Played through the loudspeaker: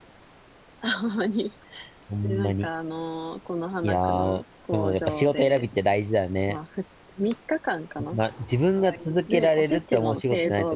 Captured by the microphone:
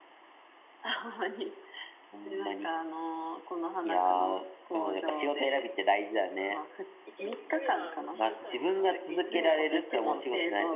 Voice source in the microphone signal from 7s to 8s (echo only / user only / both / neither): both